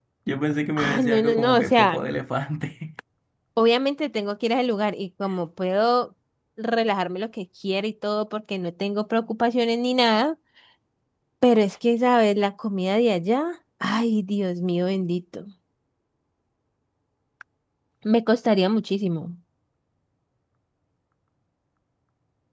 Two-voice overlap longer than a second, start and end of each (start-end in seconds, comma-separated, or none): 0.8-2.0